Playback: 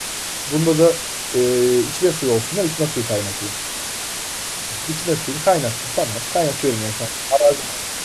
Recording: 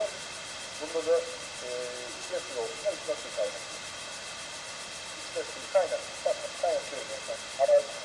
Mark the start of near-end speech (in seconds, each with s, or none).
none